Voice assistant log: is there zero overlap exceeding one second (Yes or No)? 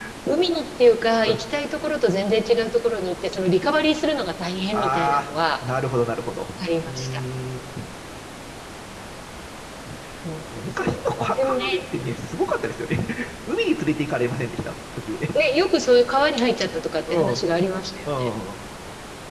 No